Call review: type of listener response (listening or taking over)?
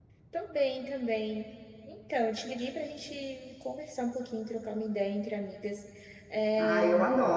taking over